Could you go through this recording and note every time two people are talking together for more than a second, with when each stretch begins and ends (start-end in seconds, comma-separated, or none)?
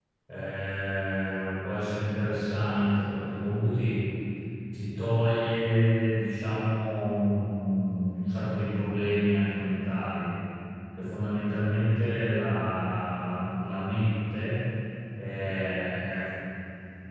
none